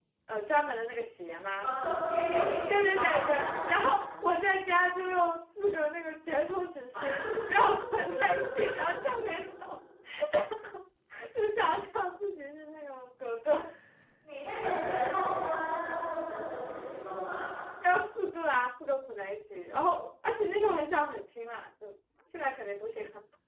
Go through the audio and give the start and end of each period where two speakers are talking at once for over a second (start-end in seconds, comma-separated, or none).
2.3-3.8